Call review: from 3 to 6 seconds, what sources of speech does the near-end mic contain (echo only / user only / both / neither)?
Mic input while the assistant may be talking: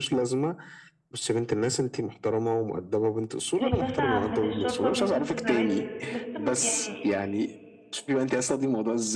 both